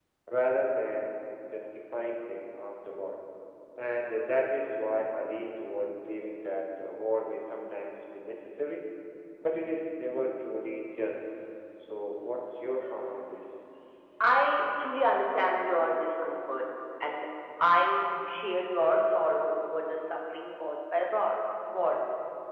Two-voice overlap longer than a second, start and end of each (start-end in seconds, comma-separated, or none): none